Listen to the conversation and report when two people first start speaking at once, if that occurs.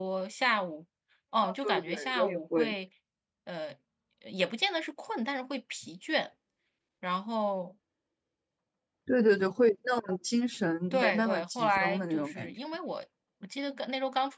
1.4 s

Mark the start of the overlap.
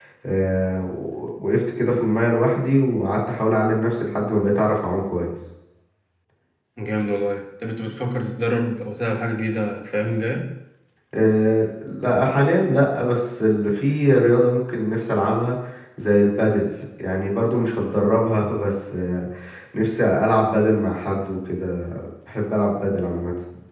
none

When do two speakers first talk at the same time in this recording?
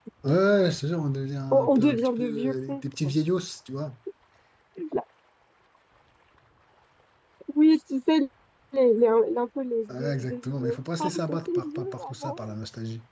1.5 s

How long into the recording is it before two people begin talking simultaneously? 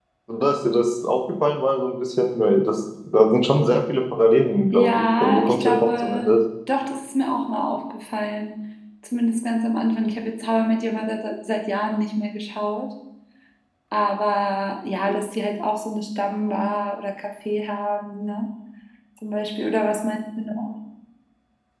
4.7 s

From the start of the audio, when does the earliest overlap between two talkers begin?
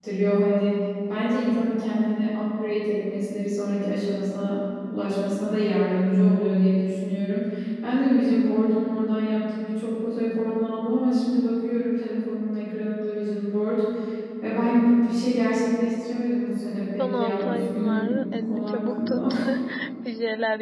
17.0 s

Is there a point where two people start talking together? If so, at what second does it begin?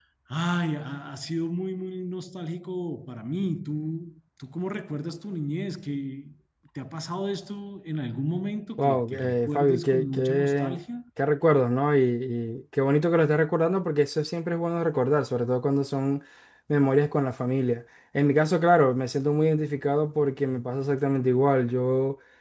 8.8 s

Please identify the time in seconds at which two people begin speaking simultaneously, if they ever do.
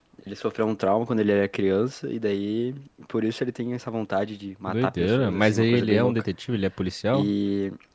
4.7 s

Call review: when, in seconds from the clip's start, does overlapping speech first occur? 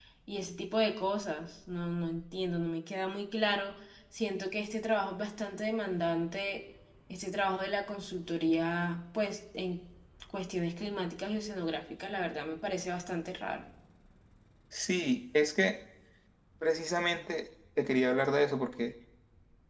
none

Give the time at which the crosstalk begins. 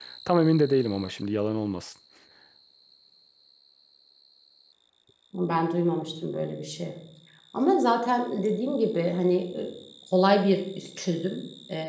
none

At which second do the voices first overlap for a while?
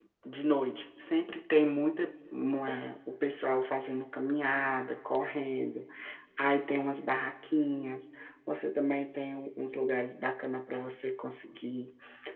none

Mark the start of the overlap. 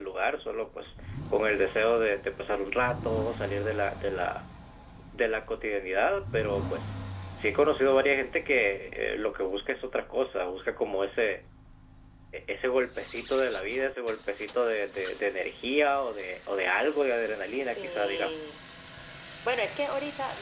16.7 s

